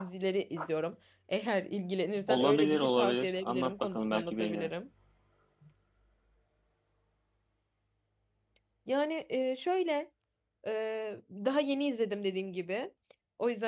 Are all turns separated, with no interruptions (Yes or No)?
No